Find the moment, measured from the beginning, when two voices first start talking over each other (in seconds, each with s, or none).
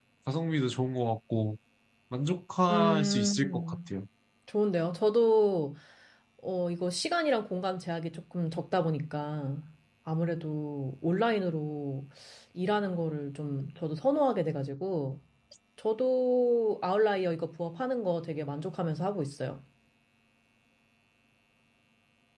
2.7 s